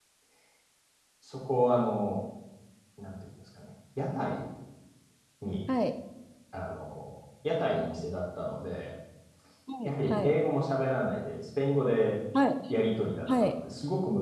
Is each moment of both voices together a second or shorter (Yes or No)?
Yes